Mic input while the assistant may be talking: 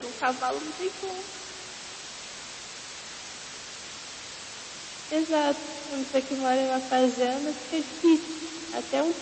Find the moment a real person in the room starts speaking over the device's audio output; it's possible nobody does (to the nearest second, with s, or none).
none